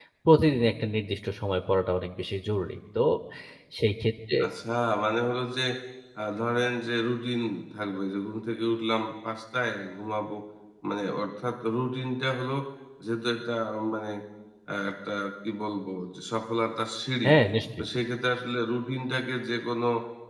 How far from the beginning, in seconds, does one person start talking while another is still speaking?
none

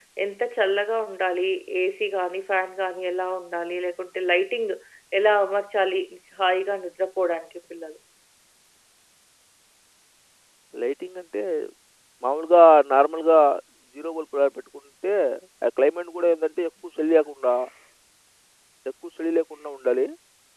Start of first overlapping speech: none

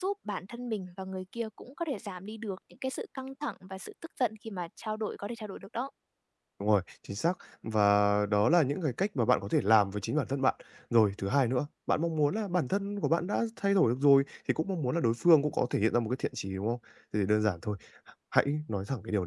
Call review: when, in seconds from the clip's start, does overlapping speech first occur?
none

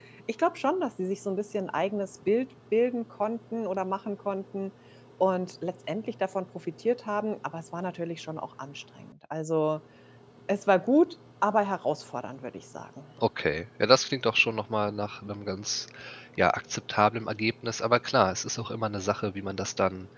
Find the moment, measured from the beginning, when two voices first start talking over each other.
none

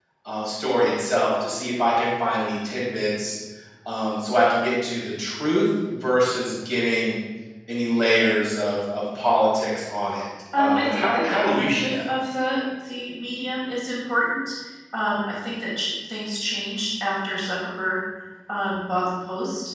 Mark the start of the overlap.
10.5 s

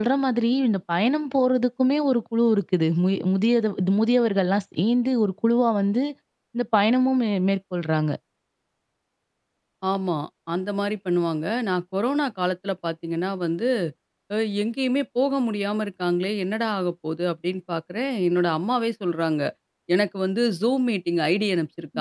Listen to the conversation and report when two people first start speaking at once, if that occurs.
none

